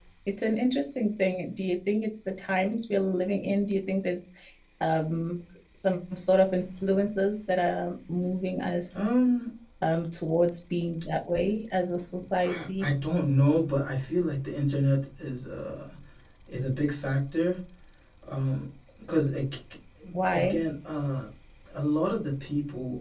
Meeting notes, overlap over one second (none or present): none